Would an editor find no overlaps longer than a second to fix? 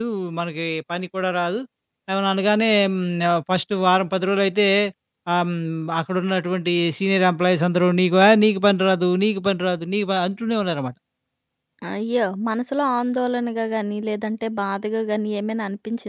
Yes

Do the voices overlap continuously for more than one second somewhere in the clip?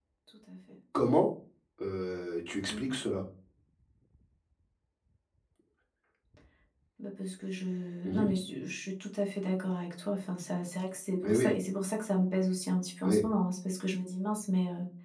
No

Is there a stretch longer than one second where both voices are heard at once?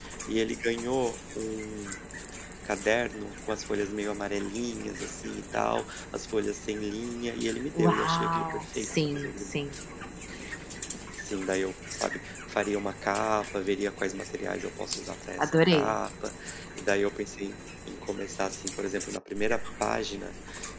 Yes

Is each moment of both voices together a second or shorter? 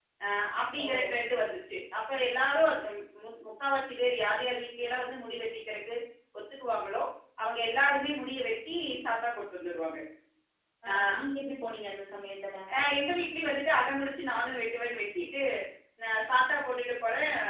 Yes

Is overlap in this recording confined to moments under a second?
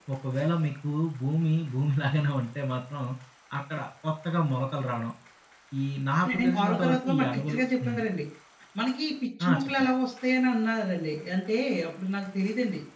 No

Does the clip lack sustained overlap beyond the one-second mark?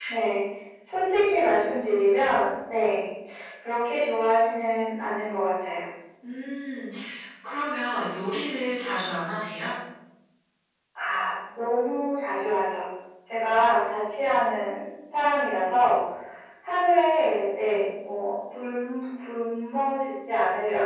Yes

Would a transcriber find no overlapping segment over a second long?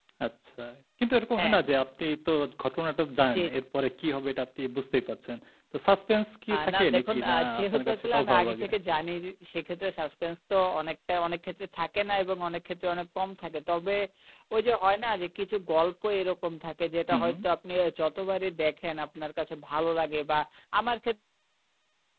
No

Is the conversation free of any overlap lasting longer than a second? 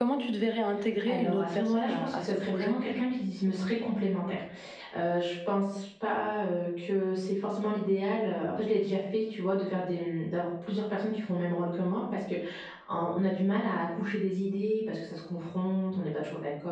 No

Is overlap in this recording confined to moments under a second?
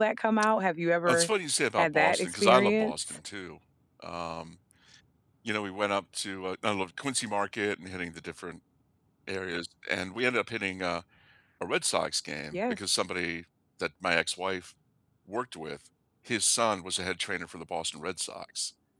No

